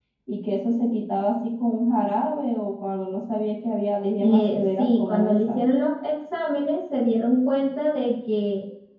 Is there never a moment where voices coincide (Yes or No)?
No